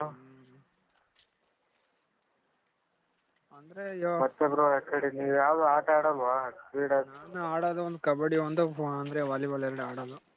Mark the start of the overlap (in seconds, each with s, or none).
none